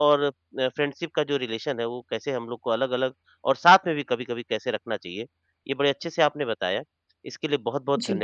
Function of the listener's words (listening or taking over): listening